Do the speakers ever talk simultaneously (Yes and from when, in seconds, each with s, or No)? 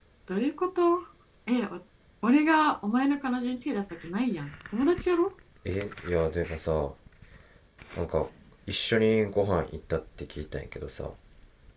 No